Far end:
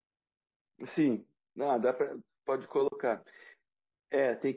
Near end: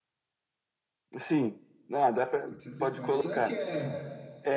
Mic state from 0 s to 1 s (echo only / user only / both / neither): neither